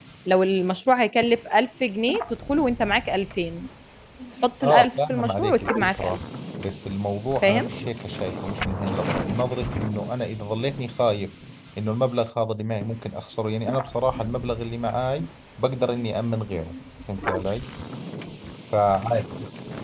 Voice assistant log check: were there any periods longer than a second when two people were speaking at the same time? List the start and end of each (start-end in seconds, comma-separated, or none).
4.6-6.2